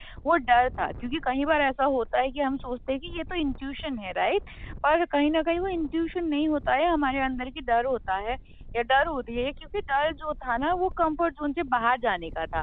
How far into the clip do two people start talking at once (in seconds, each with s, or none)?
none